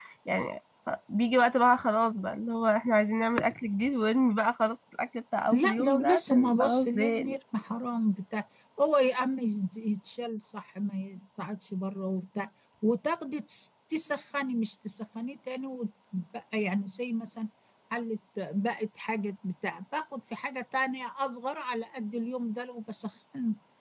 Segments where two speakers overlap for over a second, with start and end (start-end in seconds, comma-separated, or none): 5.5-7.4